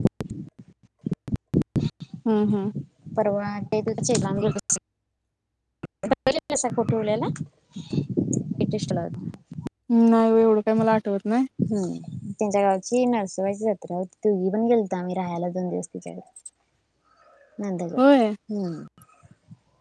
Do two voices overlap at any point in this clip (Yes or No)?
No